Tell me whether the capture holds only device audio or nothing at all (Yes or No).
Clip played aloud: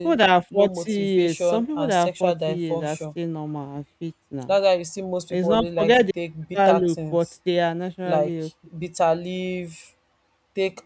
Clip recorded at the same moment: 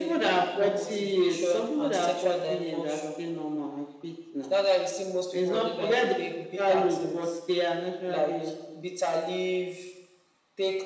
Yes